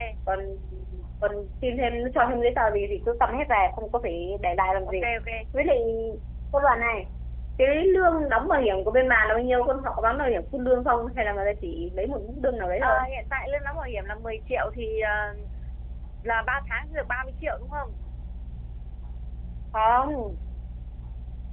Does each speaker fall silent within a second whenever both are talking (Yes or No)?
Yes